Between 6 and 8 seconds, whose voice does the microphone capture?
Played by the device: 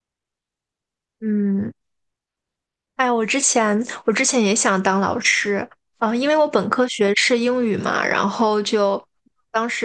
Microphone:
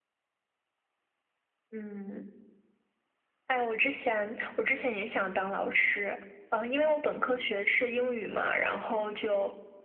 echo only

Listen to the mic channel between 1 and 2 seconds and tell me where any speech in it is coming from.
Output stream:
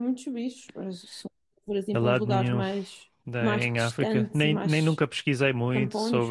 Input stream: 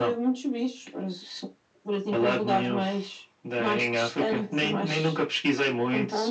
echo only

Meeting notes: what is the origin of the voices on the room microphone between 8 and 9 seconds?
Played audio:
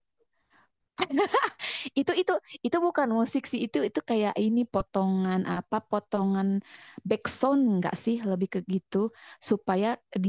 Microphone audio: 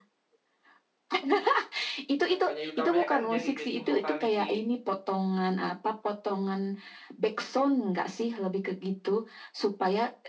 echo only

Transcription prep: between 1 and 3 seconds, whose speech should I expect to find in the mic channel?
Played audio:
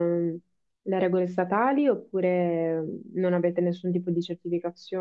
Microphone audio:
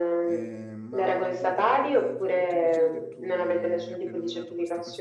both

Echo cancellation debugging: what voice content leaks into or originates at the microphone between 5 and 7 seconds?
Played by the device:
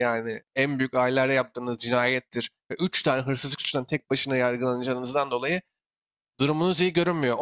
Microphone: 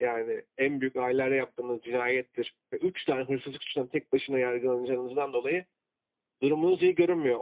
echo only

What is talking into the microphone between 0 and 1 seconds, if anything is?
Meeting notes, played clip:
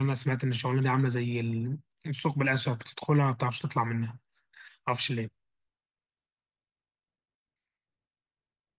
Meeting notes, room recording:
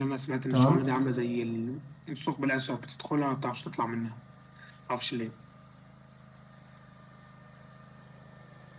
both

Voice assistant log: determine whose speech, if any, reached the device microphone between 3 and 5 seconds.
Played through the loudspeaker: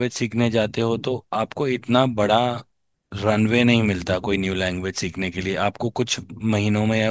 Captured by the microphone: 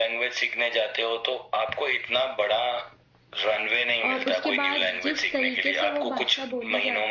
both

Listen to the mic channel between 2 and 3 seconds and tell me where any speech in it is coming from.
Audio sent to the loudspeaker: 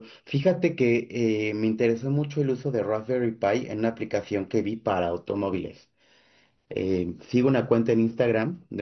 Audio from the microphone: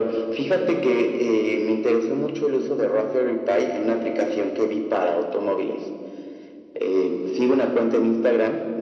echo only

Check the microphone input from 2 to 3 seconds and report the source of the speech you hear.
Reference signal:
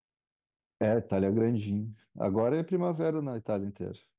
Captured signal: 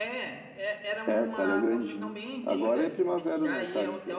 both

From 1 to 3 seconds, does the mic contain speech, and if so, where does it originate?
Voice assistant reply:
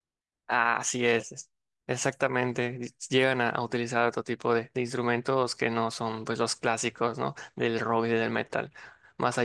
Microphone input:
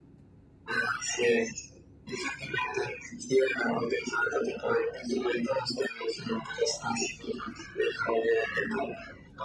echo only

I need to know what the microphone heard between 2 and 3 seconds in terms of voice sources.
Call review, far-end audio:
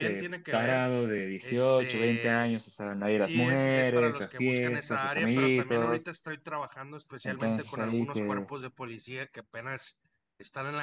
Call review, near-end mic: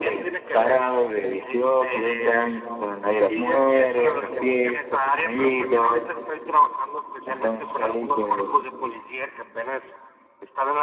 echo only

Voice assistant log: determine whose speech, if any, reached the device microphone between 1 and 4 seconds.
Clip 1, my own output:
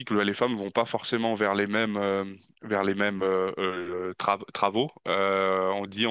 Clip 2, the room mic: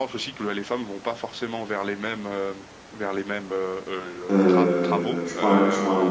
echo only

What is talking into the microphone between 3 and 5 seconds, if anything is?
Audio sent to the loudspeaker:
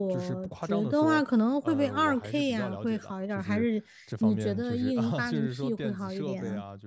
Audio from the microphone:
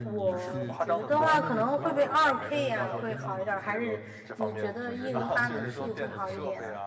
both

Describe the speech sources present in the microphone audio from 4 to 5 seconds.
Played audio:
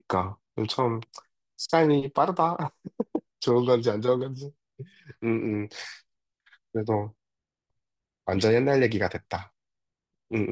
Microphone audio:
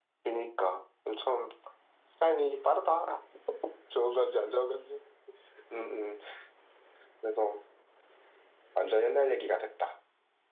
echo only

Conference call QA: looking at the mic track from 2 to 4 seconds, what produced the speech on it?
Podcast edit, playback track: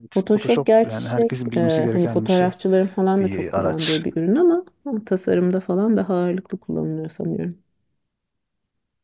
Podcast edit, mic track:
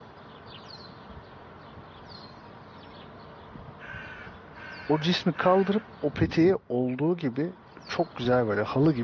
neither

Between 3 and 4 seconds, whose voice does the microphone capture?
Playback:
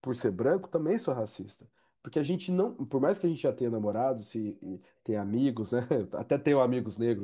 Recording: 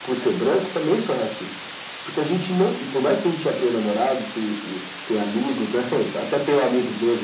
echo only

